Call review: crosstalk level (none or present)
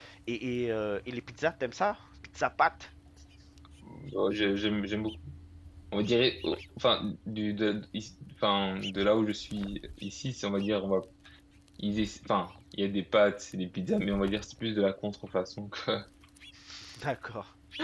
none